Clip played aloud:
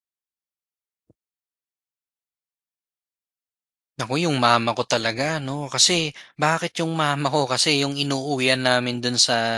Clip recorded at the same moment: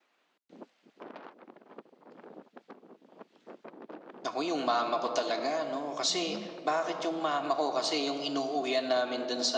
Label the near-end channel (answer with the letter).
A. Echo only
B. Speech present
B